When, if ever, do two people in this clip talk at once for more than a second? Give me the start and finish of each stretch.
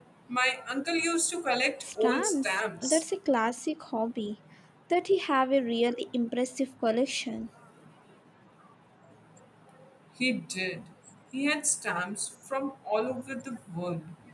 1.8-3.0

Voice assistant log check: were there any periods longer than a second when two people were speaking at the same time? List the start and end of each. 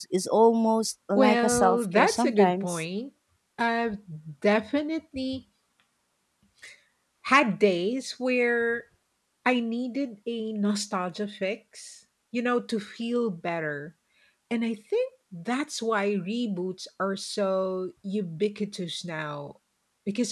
1.2-2.8

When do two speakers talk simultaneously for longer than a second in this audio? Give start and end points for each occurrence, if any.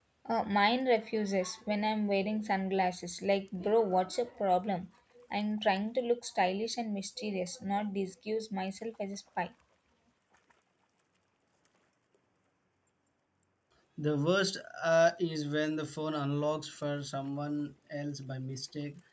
none

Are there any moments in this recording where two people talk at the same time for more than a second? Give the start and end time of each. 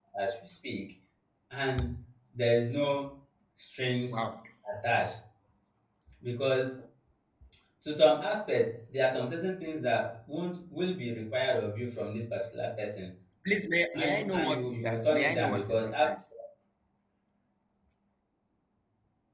13.9-16.1

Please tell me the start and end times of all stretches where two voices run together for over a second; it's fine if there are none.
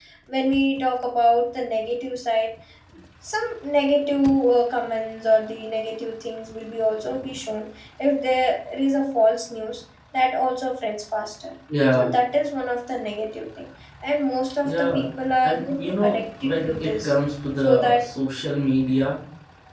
15.4-17.1

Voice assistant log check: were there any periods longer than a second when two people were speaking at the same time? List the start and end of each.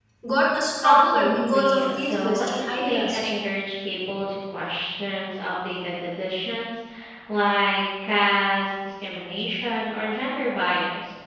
0.8-3.2

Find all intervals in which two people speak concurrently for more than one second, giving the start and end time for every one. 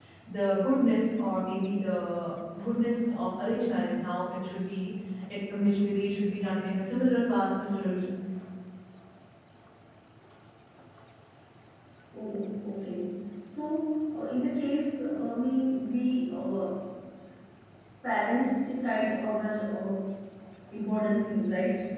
none

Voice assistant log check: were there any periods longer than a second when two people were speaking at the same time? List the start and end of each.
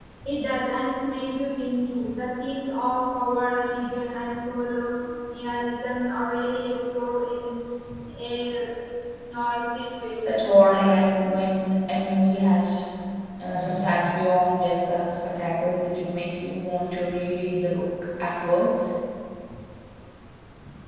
none

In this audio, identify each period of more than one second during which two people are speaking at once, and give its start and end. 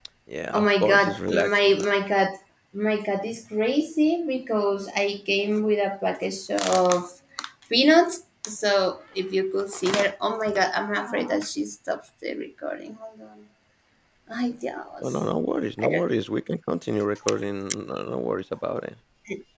0.5-1.8

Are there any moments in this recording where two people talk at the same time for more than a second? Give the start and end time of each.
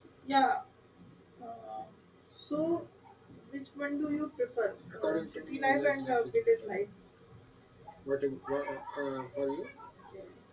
5.0-6.5

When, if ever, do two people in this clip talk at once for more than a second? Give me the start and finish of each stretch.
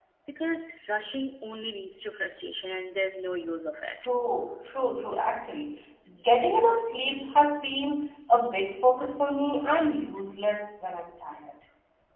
none

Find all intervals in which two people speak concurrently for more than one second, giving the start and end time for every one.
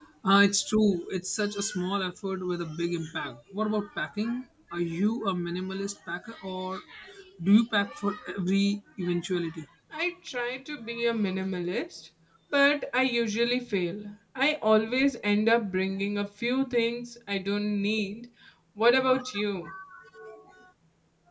none

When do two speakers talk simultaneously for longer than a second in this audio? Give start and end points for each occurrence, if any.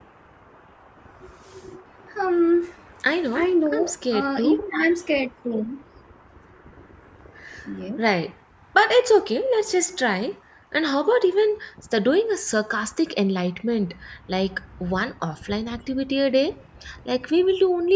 3.3-4.6

